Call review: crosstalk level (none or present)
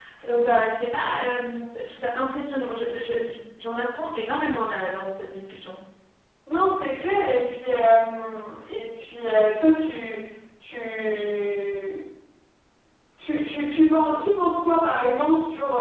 none